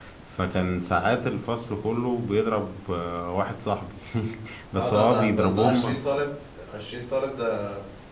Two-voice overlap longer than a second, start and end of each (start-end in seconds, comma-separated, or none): 4.8-6.0